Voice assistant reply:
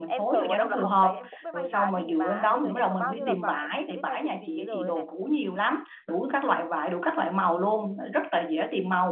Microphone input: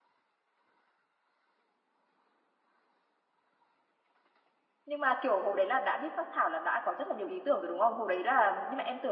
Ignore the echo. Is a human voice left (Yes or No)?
Yes